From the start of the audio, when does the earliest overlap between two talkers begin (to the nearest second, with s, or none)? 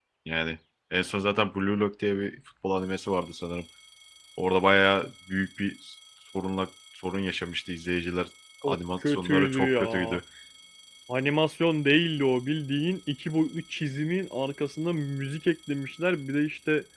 9 s